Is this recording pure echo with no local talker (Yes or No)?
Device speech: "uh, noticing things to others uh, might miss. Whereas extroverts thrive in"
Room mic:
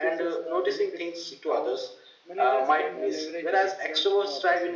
No